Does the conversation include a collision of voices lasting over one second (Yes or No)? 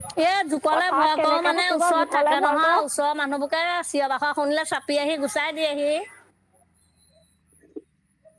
Yes